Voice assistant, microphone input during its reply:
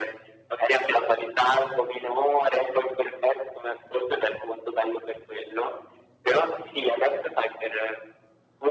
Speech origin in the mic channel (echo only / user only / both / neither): echo only